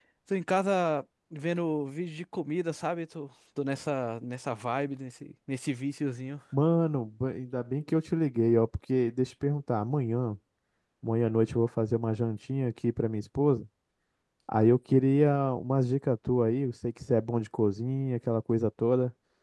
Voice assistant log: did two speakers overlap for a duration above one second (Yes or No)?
No